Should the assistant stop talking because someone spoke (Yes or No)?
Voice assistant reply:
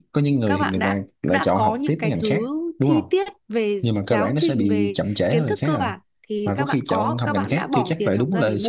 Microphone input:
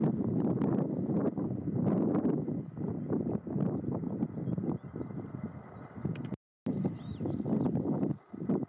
No